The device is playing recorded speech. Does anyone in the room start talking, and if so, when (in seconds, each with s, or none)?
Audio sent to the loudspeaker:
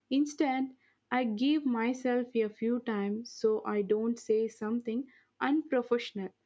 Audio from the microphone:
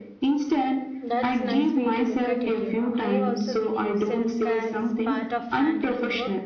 1.0 s